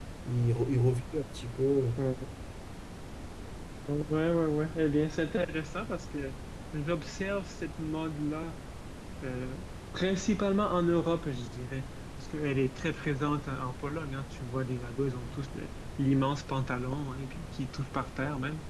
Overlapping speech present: No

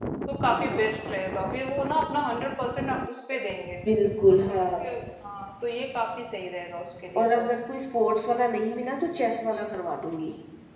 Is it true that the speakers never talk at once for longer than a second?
Yes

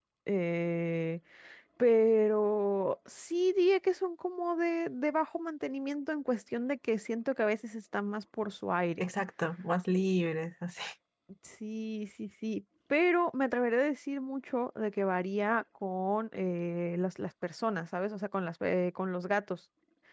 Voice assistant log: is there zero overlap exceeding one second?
Yes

